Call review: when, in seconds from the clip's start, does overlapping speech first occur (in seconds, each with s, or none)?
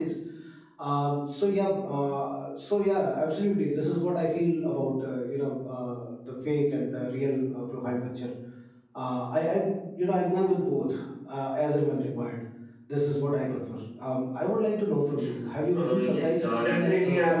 15.7 s